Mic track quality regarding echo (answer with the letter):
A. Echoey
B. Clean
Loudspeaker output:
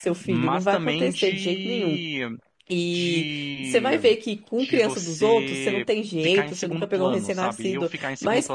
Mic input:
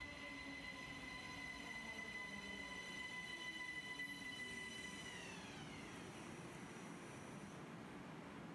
B